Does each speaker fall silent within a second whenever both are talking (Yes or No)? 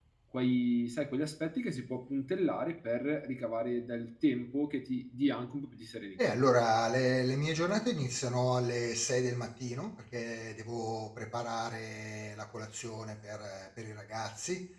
Yes